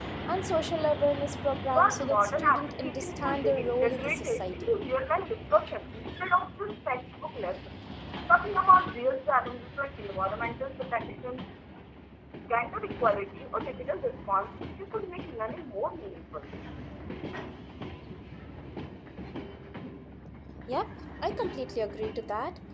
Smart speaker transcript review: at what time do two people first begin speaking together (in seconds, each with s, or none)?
1.8 s